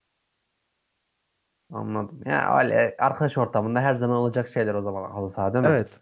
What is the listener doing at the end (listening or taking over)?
taking over